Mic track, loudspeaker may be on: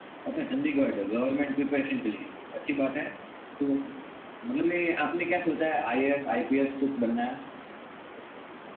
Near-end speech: none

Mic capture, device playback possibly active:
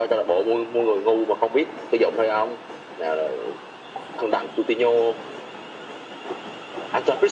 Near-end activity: none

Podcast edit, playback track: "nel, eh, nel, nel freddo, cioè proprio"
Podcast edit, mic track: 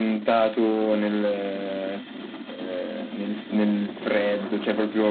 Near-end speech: none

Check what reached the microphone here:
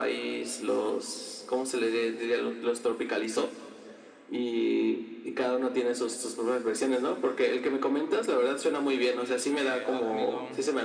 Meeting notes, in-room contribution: present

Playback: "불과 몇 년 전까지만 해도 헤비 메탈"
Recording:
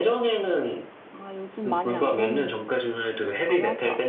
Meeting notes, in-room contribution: present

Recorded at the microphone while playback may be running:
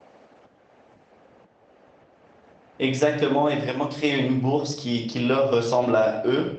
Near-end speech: present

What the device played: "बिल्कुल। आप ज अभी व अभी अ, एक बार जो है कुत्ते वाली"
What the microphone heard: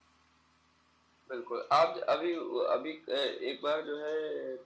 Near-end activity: none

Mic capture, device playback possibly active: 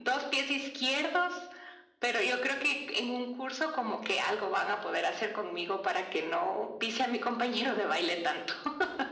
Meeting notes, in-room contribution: none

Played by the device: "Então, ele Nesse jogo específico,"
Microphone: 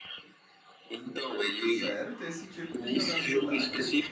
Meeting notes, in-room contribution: present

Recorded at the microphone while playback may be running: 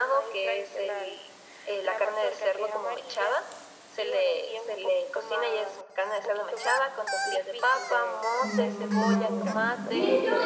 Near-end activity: present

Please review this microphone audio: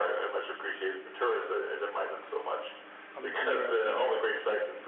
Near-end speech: present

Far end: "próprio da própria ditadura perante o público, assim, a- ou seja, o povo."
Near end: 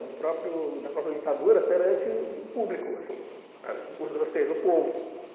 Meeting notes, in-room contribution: none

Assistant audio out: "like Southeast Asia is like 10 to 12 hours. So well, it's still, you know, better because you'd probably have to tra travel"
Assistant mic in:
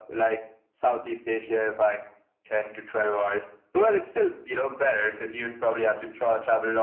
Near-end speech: none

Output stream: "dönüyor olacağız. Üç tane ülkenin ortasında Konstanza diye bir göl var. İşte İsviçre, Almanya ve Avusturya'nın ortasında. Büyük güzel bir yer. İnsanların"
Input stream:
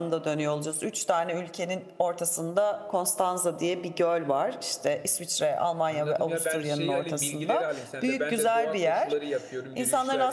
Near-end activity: present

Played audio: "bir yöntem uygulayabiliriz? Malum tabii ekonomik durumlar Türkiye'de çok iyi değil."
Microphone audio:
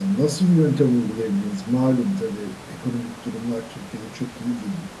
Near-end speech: none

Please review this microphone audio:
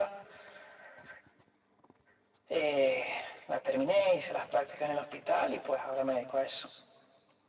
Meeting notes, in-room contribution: none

